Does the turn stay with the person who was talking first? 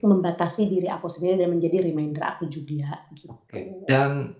No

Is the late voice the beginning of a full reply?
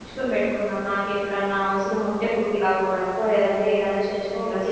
Yes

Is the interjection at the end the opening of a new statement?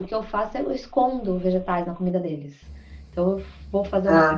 No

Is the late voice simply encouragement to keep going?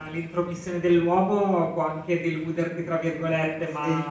Yes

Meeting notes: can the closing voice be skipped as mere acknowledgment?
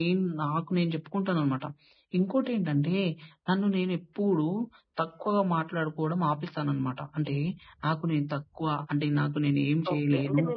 No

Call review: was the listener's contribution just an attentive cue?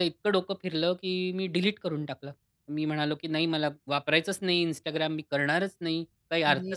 Yes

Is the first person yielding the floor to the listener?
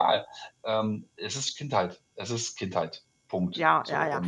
Yes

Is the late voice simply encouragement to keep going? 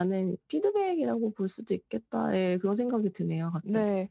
No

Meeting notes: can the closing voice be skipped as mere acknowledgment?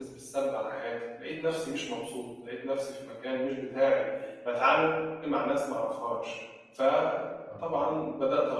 Yes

